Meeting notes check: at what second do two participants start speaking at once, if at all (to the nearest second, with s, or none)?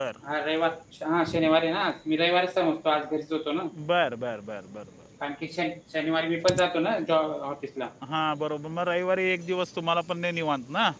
none